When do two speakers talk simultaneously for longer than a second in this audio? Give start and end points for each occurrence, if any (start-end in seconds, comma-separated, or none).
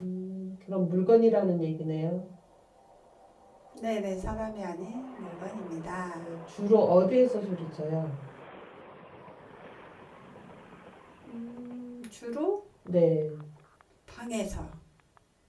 none